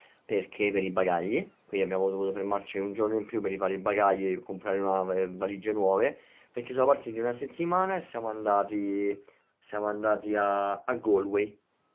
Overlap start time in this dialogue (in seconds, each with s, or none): none